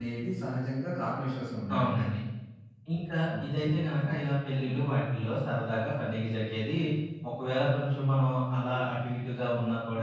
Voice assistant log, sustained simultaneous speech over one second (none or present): none